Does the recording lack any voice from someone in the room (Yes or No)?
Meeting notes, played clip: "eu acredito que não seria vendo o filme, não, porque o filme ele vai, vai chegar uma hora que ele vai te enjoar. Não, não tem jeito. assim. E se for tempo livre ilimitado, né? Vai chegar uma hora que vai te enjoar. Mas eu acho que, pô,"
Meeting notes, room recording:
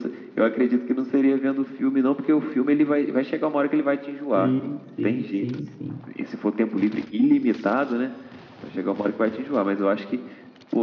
No